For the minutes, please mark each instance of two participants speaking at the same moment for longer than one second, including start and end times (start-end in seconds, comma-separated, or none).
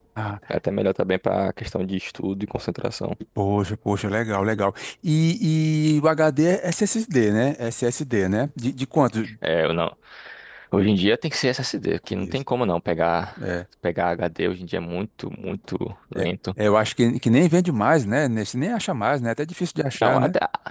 none